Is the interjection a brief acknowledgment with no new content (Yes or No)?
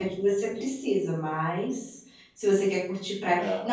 Yes